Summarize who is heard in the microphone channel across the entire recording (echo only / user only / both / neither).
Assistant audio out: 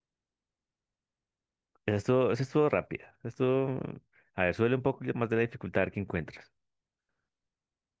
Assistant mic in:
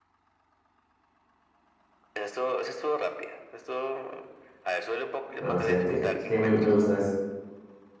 both